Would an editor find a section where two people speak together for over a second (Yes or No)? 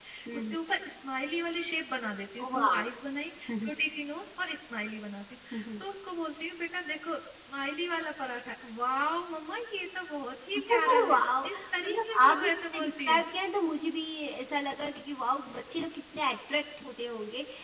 Yes